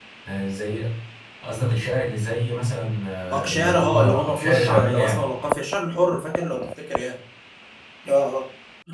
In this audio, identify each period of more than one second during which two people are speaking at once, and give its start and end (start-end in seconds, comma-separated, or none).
3.3-5.3